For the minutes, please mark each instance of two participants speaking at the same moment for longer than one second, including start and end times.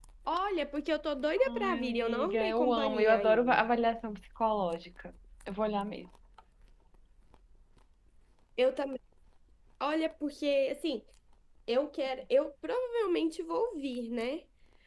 1.5-3.6

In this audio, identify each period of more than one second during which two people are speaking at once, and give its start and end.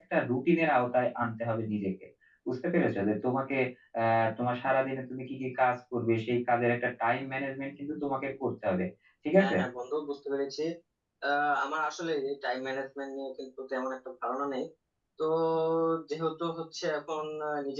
none

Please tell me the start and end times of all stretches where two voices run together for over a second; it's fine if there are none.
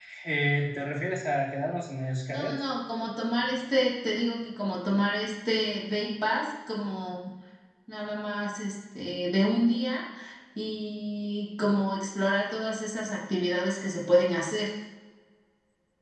none

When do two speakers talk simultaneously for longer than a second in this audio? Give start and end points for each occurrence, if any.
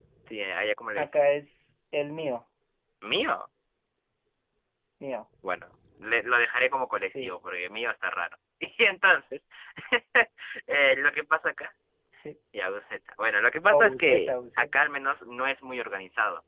13.7-14.9

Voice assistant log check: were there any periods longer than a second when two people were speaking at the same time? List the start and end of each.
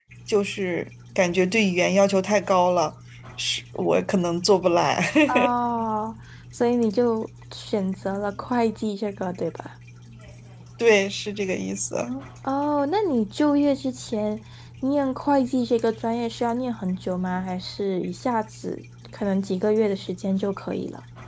none

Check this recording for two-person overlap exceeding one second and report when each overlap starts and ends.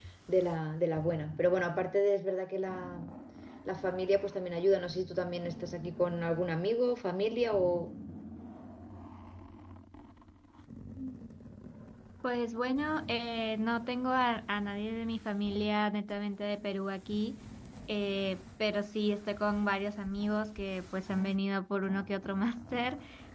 none

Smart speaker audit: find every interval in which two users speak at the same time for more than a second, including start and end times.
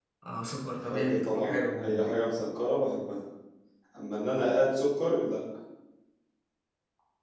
0.9-2.2

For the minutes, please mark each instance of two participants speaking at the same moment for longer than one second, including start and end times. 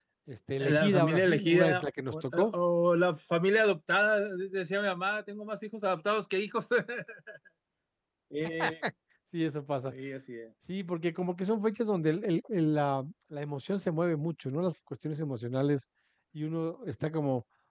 0.6-2.5

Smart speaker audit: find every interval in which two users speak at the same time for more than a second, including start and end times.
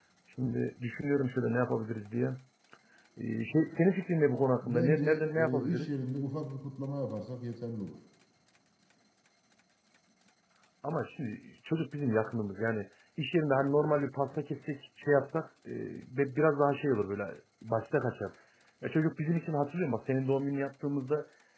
4.6-5.9

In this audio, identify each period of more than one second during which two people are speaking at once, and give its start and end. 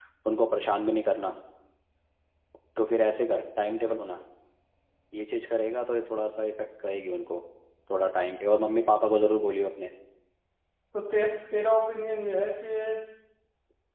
none

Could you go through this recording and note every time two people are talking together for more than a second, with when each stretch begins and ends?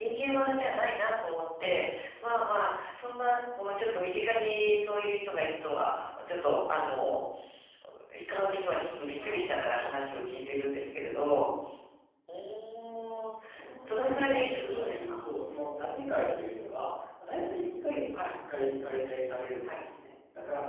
13.8-15.2

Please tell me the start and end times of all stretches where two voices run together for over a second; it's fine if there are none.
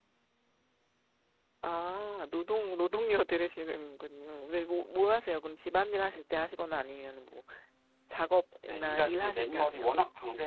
8.6-9.9

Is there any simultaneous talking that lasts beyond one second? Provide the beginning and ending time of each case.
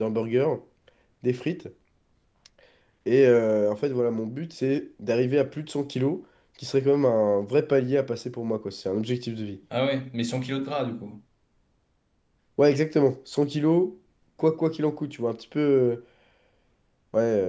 none

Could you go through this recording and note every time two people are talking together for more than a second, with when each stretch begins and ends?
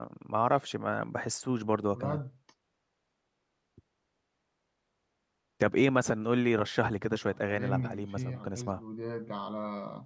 7.3-8.8

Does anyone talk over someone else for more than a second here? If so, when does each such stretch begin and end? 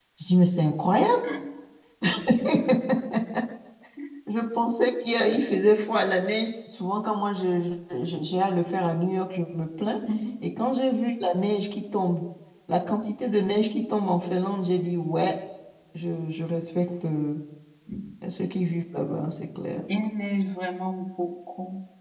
none

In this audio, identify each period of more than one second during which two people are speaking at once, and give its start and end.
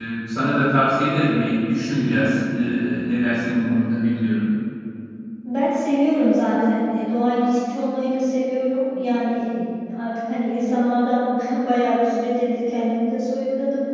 none

